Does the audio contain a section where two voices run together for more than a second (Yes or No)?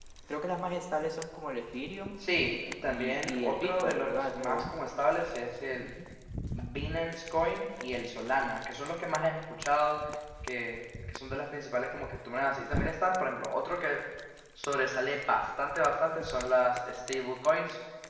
Yes